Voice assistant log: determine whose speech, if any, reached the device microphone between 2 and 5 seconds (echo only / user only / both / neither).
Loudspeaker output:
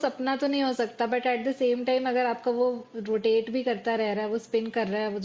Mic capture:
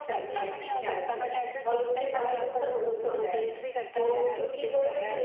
both